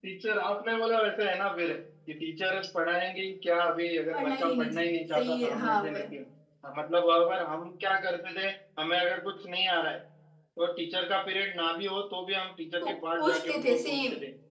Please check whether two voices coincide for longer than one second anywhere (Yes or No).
Yes